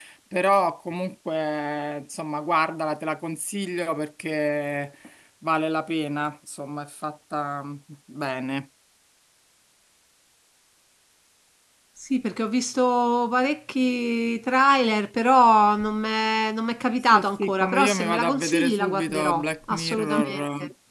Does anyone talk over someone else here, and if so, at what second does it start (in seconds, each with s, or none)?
17.1 s